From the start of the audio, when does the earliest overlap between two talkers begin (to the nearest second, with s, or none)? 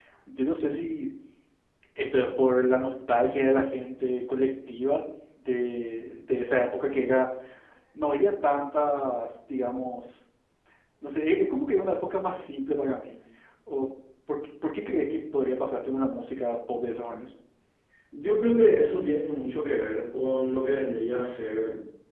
none